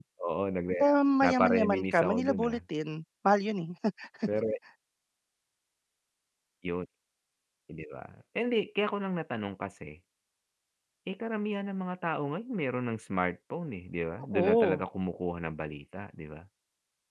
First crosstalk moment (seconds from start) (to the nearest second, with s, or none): 1 s